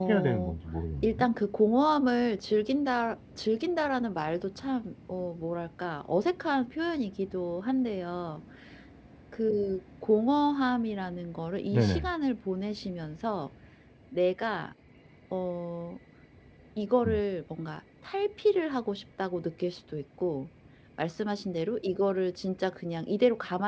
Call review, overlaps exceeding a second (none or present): none